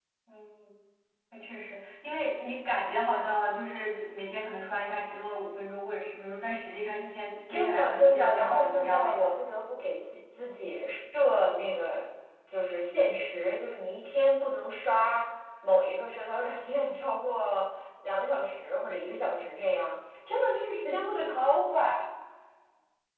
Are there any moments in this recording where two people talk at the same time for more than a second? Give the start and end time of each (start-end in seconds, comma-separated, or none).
7.5-9.3